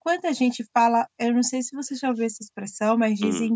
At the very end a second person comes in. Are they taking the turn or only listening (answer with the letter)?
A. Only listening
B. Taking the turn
A